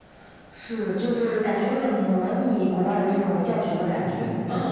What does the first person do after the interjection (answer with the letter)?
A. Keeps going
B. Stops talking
B